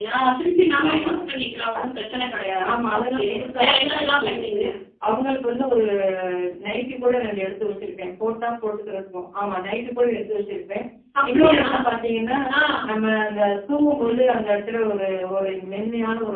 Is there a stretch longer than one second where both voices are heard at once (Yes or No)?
Yes